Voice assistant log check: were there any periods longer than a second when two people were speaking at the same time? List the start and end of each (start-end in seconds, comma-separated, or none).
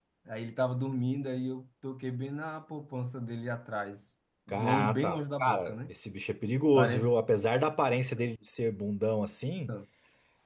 4.5-5.9